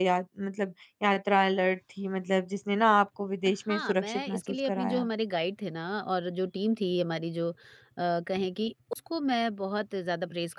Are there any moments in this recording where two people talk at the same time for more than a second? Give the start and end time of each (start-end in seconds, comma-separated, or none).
3.7-5.1